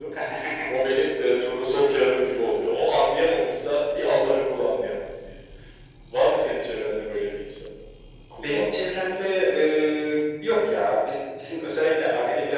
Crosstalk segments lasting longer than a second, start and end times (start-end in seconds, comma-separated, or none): 8.4-9.9